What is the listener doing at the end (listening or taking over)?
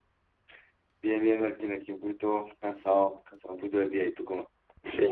taking over